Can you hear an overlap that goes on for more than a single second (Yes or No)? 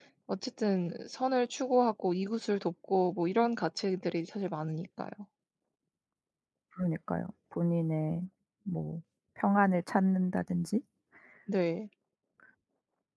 No